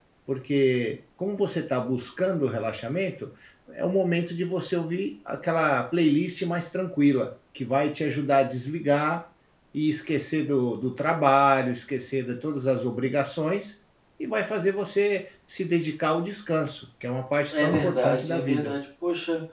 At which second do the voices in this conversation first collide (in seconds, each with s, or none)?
17.5 s